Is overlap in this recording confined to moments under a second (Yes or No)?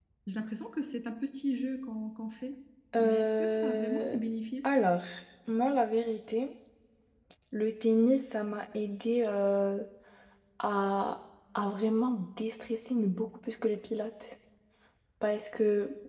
No